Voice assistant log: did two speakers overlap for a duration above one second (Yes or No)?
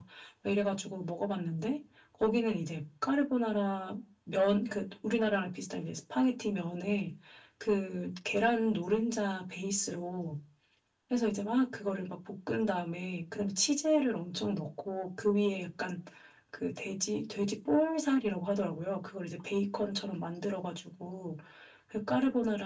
No